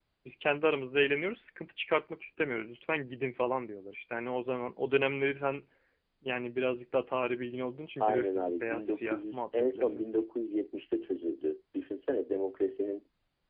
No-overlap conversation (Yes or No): No